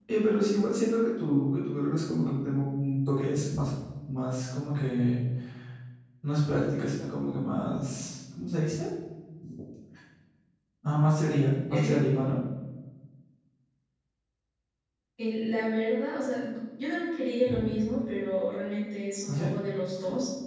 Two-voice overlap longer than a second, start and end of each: none

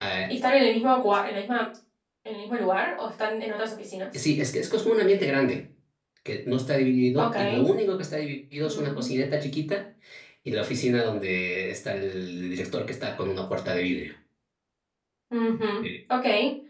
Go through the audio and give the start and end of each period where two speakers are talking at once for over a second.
none

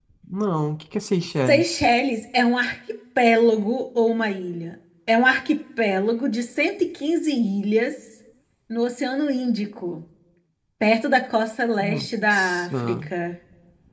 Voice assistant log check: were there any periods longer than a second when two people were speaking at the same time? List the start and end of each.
11.8-13.1

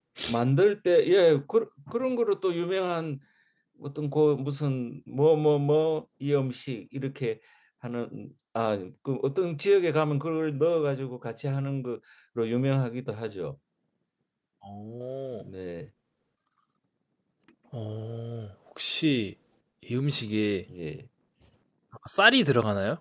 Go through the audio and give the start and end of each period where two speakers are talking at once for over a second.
none

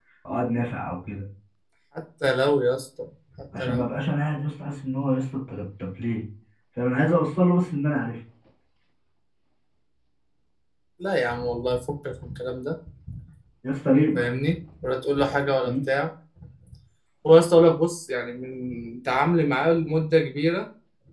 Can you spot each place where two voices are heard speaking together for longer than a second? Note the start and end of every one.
none

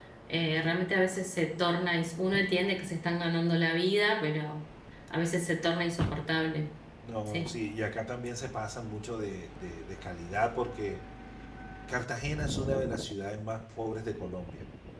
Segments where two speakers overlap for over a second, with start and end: none

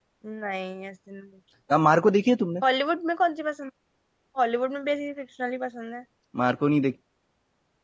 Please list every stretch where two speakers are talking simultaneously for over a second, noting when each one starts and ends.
none

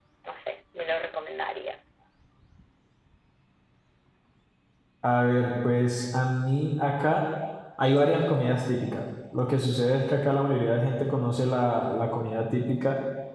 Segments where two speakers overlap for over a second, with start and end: none

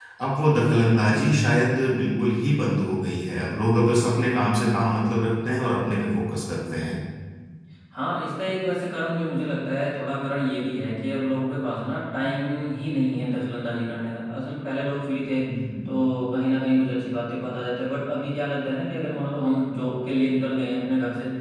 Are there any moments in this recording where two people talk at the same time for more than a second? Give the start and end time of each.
none

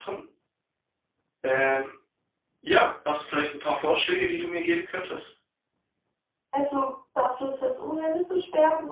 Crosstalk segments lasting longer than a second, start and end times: none

